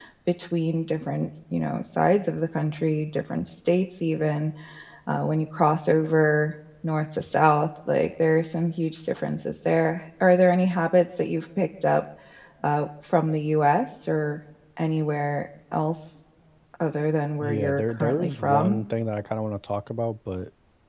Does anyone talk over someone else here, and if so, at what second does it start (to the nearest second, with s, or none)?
17 s